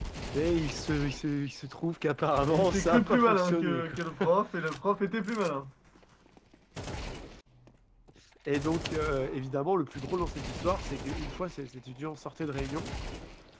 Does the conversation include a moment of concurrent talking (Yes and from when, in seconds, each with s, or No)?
Yes, from 2.4 s